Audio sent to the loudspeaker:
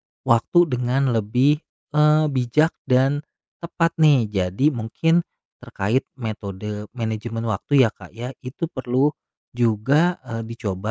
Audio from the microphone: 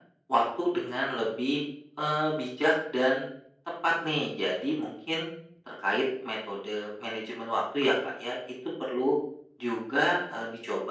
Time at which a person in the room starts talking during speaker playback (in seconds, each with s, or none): none